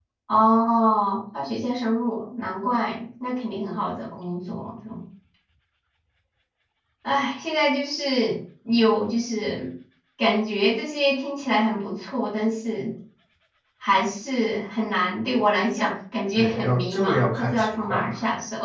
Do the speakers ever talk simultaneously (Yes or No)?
Yes